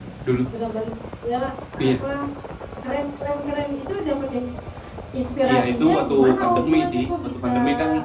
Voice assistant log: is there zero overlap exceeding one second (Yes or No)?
No